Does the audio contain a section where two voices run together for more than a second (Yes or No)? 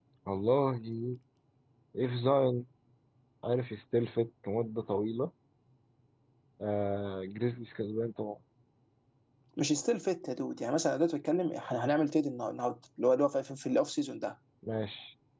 No